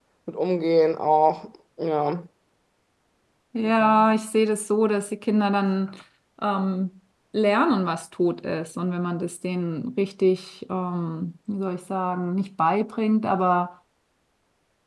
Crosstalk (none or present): none